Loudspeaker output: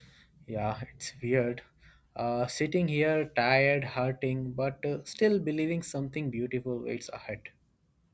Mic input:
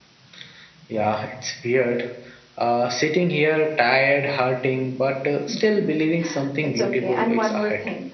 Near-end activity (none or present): present